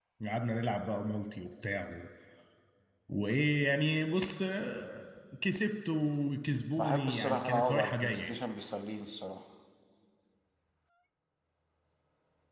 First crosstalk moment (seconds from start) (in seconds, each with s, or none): 6.8 s